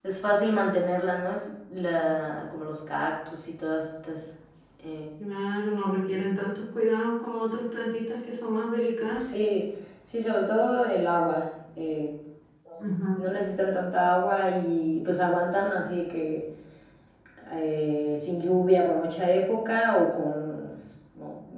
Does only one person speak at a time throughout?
Yes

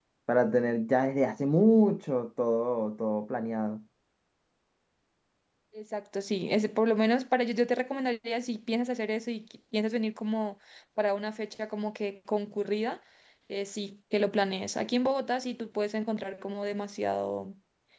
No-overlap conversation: Yes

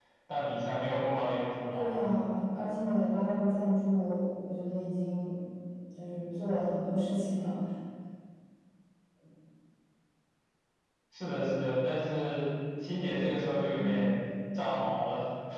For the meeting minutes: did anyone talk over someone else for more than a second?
No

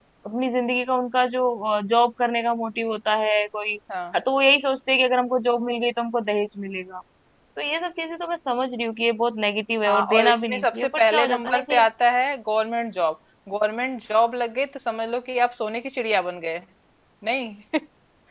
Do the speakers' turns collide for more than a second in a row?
Yes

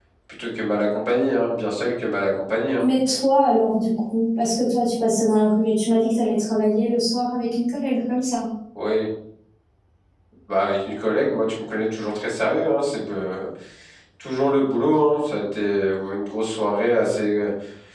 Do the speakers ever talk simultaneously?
No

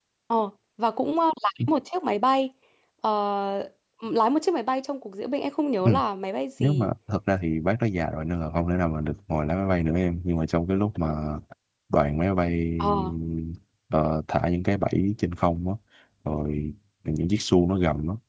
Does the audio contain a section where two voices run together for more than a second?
No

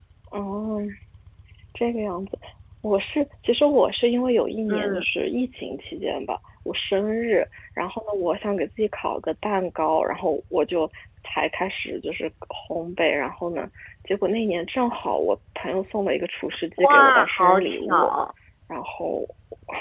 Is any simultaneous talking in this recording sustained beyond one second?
Yes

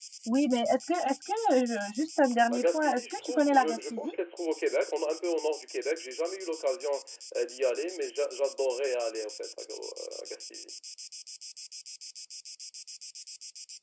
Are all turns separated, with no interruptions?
No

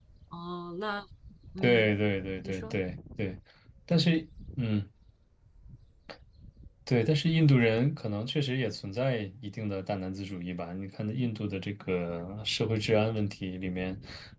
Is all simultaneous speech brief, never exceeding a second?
Yes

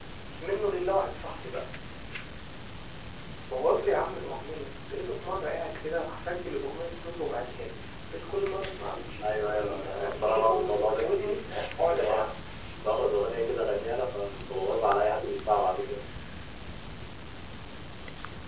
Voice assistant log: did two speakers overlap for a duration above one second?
Yes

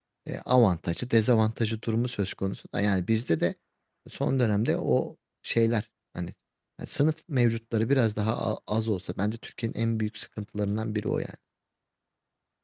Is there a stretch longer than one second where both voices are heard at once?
No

